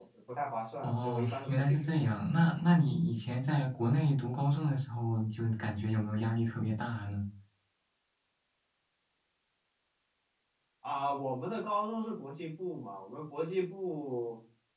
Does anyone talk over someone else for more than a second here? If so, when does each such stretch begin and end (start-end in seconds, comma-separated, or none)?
0.8-2.1